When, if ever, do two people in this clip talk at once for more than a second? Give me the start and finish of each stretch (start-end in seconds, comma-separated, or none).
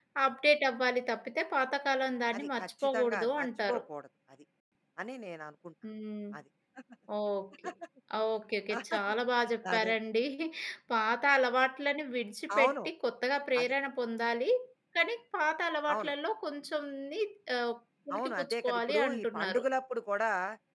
2.3-3.8, 18.1-19.6